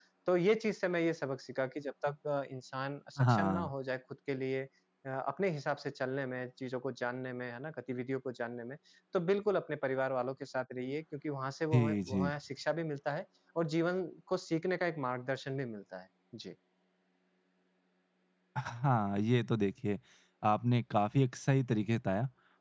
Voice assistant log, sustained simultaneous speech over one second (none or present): none